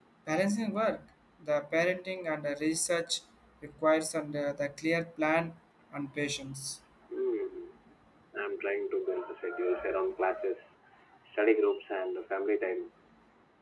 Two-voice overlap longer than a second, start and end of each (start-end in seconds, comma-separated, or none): none